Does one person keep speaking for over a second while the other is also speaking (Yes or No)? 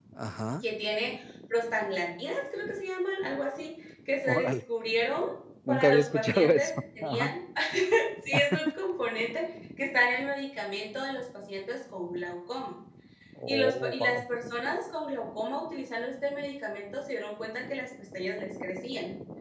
Yes